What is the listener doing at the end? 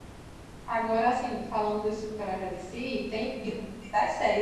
listening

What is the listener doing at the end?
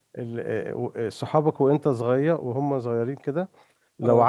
listening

